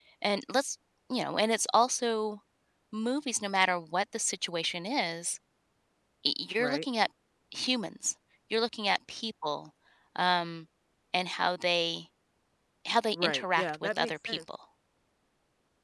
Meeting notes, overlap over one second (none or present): present